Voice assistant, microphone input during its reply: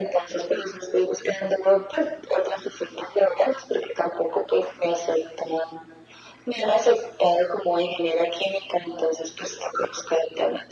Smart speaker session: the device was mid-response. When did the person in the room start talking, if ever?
none

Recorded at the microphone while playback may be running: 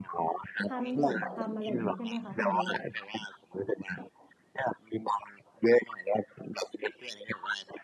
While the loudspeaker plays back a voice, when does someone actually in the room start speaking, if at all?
0.6 s

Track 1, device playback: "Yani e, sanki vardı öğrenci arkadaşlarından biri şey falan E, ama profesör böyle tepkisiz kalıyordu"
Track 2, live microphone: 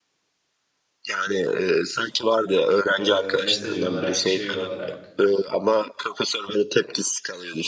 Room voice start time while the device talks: 3.0 s

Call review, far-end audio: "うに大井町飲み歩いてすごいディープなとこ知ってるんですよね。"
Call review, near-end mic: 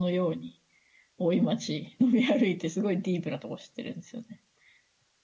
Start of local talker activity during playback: none

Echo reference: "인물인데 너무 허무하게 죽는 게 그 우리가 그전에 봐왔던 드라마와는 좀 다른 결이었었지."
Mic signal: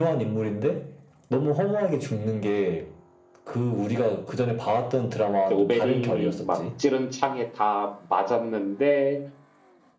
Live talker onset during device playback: 5.4 s

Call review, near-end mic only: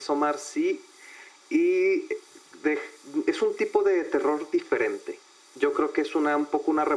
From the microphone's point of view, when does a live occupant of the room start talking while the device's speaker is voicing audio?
none

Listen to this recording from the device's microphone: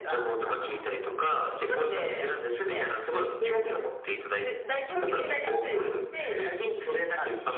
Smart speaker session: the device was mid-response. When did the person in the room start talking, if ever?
3.4 s

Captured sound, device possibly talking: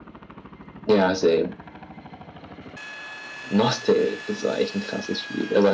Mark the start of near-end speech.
none

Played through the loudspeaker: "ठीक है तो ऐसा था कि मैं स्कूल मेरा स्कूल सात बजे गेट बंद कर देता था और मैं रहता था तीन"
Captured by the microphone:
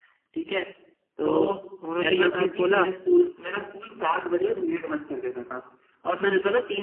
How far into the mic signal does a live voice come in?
1.2 s

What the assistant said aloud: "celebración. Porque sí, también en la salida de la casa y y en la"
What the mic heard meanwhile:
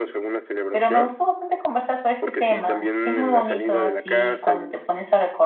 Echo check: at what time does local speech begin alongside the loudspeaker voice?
0.7 s

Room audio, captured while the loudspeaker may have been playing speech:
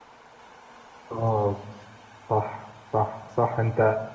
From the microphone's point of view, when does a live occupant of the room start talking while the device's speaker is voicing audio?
1.1 s

